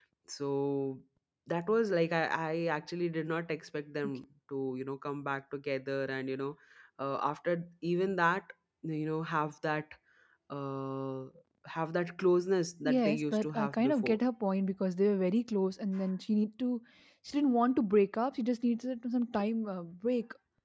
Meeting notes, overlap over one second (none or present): present